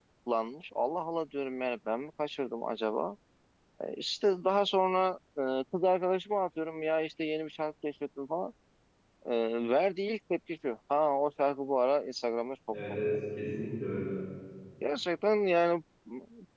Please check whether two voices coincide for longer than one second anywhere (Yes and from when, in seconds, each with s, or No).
No